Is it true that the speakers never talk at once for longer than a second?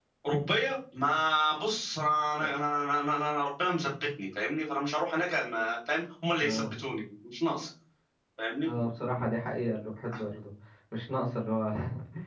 Yes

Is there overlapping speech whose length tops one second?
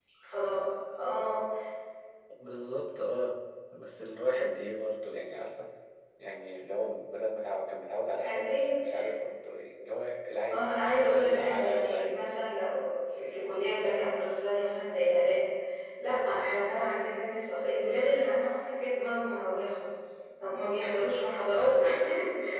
Yes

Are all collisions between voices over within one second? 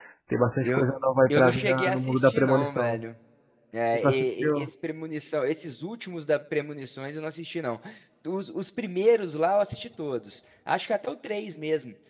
No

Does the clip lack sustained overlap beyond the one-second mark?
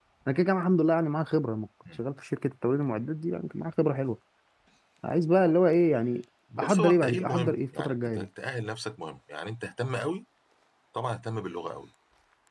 No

